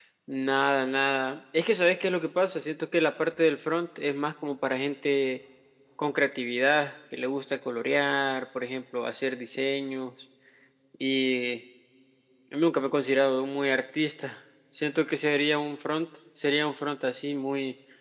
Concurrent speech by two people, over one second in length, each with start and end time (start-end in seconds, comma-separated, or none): none